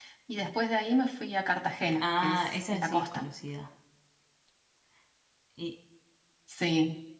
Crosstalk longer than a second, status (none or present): present